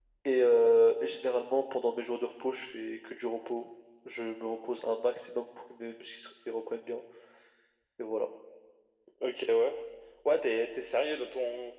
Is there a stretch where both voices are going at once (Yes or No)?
No